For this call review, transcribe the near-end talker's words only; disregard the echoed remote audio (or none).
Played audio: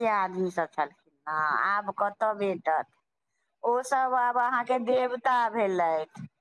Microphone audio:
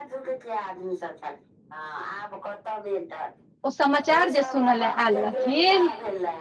ओ समाचार जे सुनय ले आयल रहथिन